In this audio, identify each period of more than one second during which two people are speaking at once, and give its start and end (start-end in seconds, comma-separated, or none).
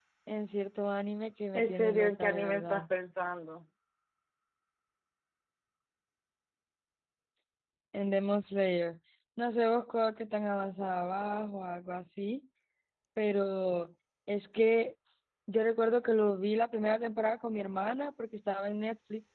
1.5-2.9